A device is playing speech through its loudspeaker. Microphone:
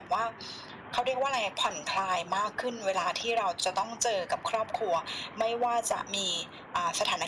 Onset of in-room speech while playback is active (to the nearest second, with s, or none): none